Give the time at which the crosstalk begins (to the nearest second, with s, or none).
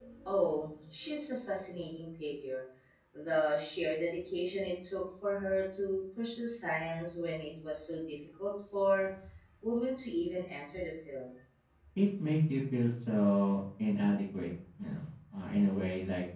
none